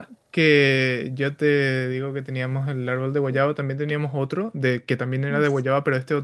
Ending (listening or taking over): listening